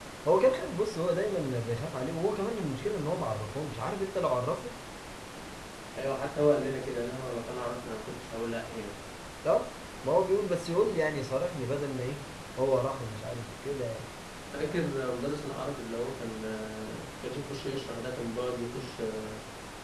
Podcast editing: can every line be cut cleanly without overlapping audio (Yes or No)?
Yes